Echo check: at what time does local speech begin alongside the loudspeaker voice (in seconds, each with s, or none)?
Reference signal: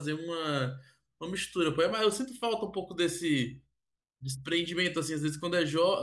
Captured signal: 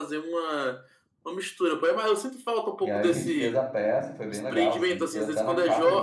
2.8 s